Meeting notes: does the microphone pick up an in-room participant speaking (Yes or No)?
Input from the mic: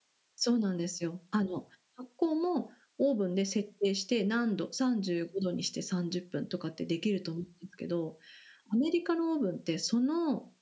Yes